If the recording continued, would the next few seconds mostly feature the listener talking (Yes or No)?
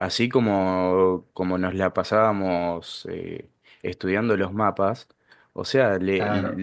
No